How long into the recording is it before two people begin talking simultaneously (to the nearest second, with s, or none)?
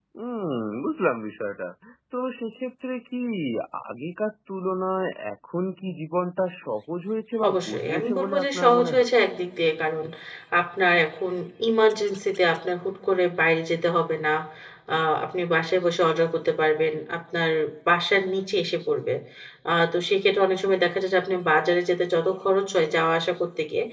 7 s